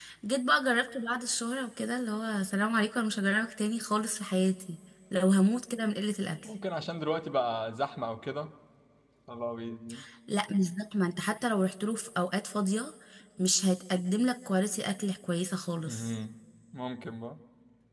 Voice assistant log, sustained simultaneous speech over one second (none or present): none